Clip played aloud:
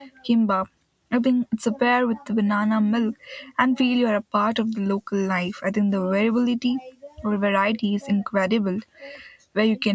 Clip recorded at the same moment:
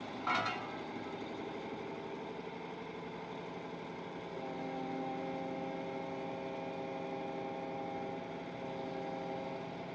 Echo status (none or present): none